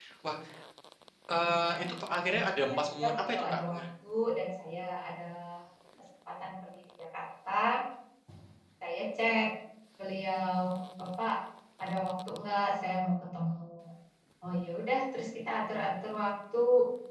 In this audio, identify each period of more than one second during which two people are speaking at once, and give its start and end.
2.3-3.8

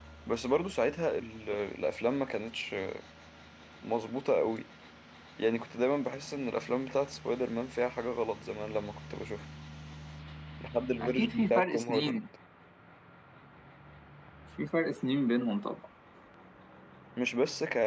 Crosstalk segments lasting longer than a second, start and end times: 11.0-12.2

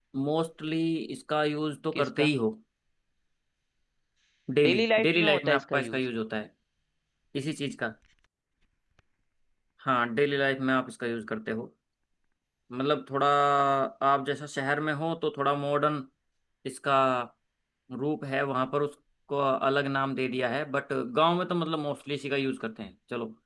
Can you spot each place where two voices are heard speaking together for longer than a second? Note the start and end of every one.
4.6-6.0

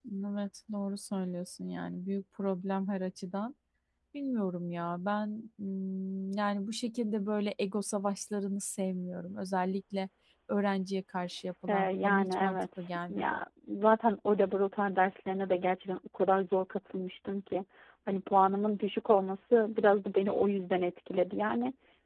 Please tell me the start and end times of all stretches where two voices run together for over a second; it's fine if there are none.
11.7-13.4

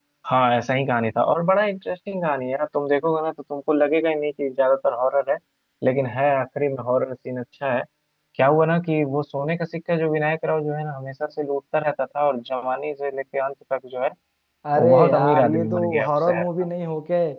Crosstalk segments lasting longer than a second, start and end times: 14.8-16.5

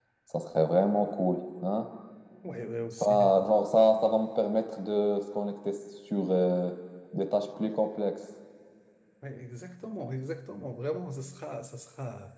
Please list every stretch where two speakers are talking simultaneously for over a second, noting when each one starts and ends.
none

